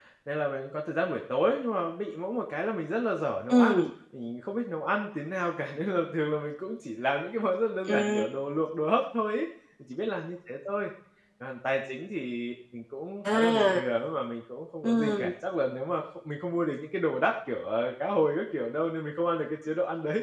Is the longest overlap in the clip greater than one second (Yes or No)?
No